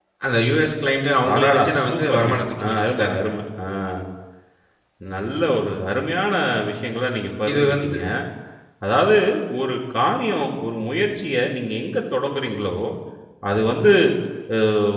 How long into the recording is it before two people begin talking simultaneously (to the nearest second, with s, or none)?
1 s